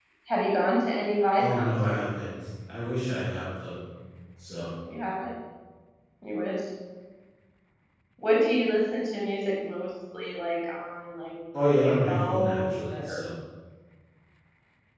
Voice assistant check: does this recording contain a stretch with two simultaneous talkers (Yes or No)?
Yes